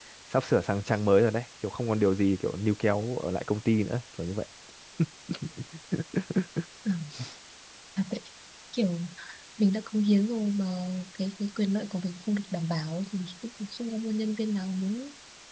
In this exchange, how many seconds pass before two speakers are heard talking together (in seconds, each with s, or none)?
none